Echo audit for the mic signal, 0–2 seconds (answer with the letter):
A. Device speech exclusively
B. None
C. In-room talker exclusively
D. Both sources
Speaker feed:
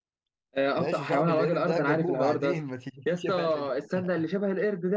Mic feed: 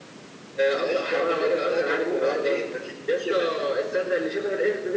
A